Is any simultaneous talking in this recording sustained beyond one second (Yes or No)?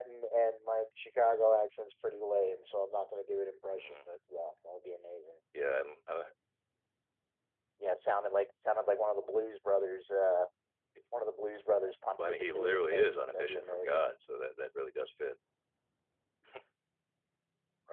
Yes